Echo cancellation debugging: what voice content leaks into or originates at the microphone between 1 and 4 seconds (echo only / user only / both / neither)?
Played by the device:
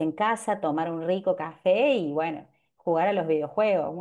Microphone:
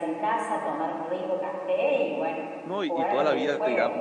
both